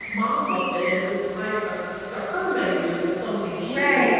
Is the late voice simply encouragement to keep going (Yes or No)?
Yes